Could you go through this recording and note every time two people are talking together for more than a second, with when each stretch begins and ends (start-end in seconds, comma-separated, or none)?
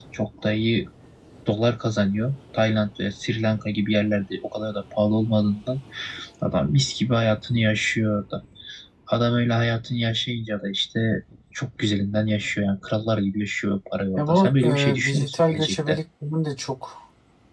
14.2-16.0